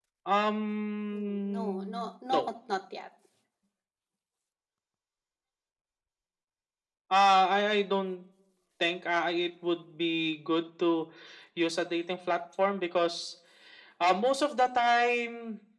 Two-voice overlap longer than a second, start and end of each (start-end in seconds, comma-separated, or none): 1.1-2.5